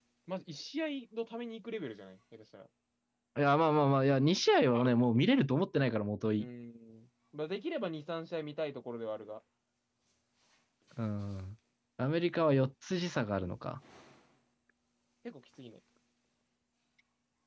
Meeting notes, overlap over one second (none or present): none